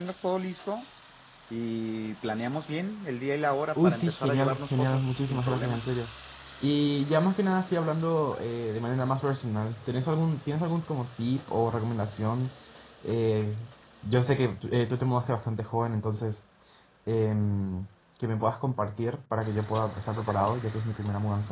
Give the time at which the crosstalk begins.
3.8 s

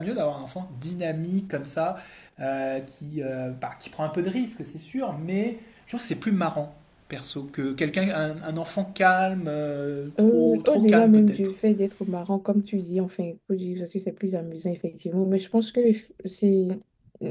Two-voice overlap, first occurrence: 10.2 s

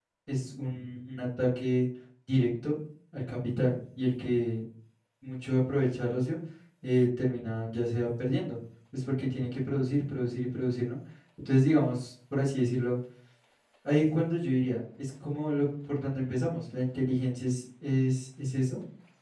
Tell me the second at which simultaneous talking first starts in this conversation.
none

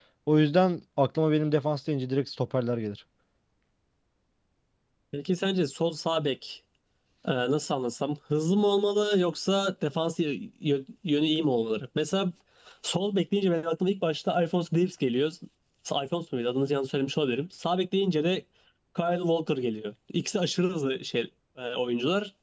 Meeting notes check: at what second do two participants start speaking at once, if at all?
none

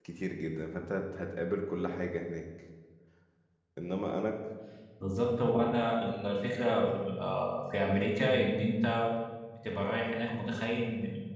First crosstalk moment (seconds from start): none

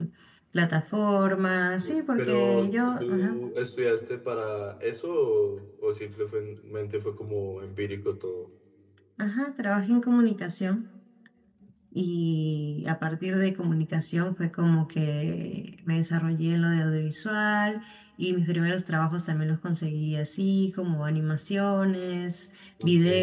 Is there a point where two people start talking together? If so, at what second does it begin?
1.8 s

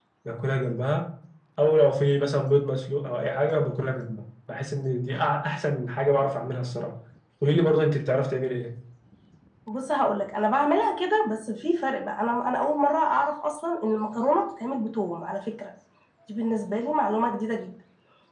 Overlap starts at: none

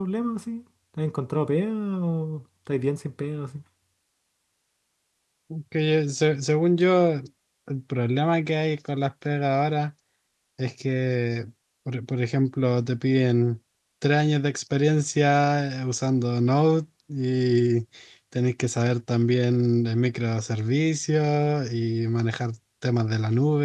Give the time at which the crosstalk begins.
none

